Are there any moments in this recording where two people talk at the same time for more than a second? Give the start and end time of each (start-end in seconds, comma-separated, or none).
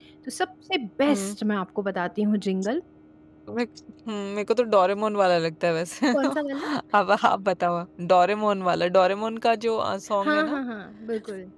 none